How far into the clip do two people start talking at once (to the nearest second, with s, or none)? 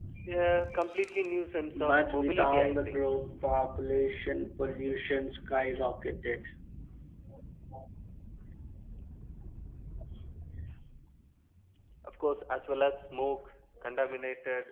2 s